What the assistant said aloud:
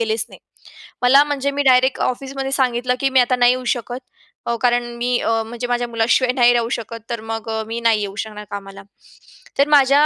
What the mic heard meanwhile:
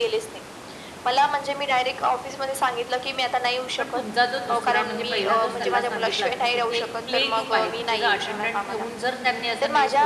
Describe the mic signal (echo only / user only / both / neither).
both